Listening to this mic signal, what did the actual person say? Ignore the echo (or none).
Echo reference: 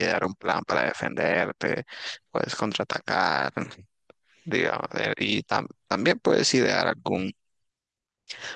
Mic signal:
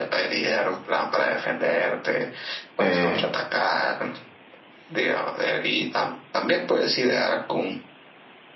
eh,